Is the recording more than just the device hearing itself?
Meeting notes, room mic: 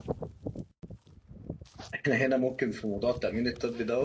Yes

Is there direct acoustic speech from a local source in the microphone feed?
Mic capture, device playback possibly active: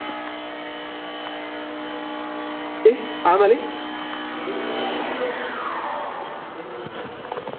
Yes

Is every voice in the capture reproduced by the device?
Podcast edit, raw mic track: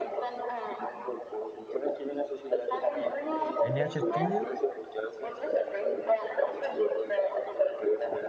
No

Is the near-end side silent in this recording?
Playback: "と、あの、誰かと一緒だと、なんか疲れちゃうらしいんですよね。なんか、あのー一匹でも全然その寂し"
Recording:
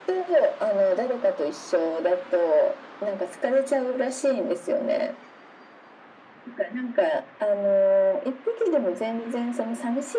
Yes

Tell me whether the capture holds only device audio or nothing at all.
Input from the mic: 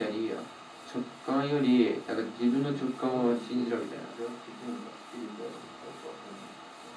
Yes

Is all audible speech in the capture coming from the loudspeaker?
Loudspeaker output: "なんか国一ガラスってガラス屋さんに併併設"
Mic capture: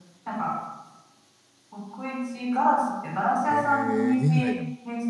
No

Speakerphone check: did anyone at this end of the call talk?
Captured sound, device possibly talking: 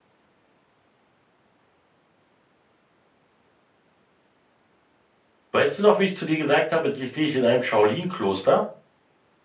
Yes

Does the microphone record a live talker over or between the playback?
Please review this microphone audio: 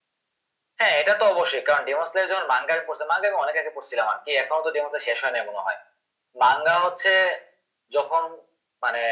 No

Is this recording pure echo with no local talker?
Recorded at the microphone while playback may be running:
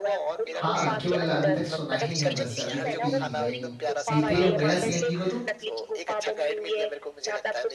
No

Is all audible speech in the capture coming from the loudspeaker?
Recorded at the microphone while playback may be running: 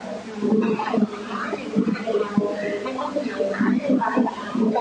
Yes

